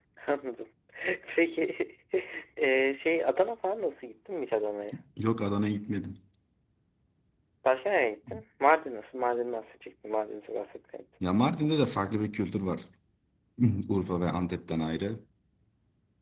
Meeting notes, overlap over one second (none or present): none